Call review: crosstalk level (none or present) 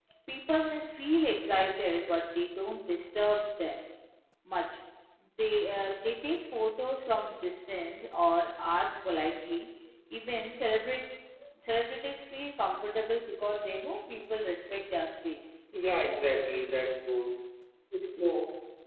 none